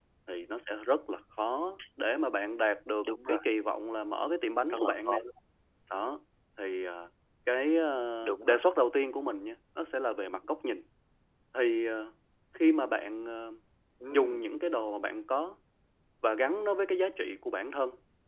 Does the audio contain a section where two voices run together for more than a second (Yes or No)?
No